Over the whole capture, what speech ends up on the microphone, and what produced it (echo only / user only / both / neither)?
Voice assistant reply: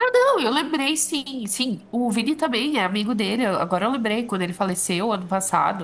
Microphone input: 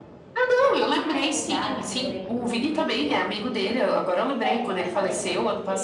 both